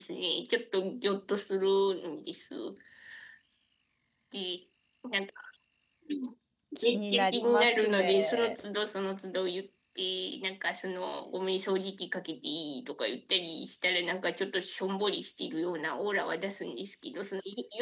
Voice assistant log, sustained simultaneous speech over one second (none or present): present